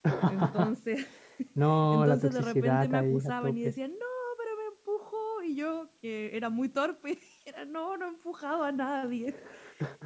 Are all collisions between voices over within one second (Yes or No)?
No